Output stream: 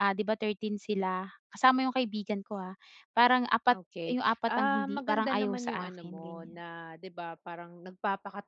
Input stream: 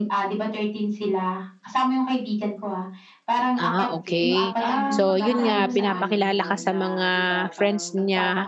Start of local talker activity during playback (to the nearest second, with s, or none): 4 s